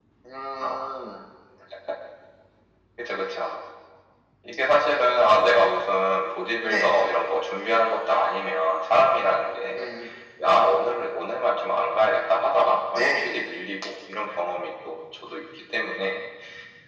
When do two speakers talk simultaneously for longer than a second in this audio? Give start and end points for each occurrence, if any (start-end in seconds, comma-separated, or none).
none